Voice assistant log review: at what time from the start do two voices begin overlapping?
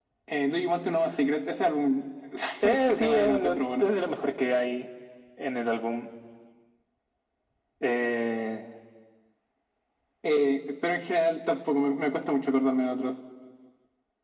2.6 s

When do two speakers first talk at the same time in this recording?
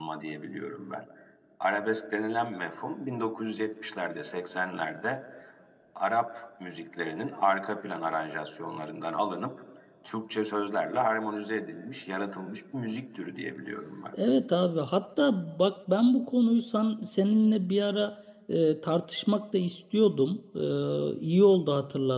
none

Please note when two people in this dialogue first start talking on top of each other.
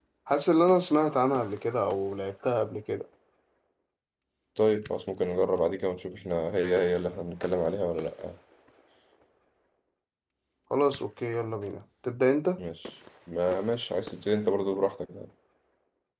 none

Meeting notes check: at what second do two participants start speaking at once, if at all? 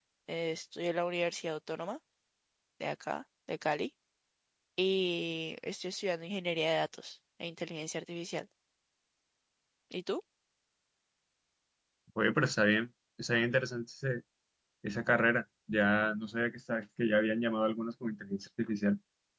none

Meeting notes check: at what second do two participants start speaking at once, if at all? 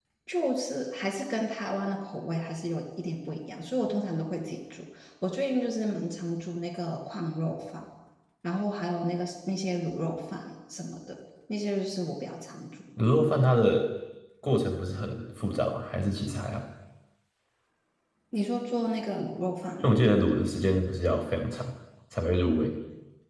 none

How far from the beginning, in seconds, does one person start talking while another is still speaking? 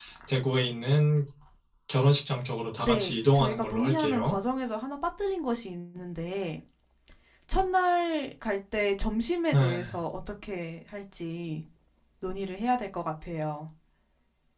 2.8 s

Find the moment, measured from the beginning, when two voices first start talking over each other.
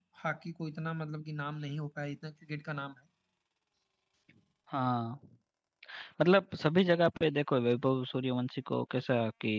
none

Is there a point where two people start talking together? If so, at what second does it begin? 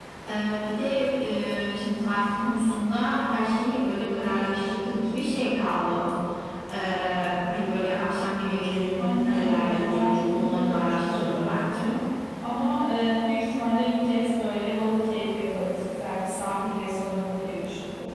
8.9 s

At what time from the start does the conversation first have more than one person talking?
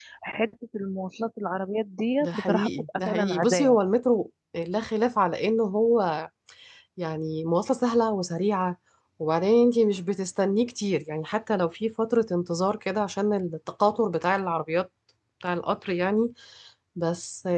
2.2 s

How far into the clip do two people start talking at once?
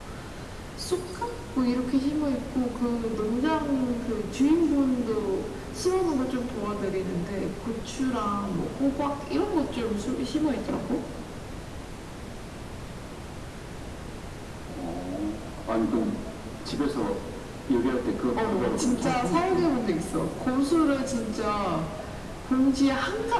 18.4 s

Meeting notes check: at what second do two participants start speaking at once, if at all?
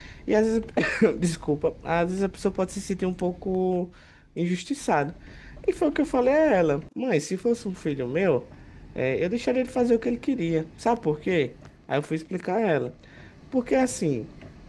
none

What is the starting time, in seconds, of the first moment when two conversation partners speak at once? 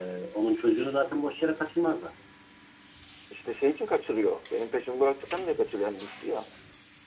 none

